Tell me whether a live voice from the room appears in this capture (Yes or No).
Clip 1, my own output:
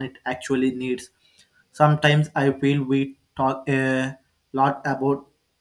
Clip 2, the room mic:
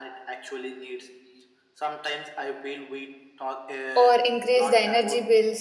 Yes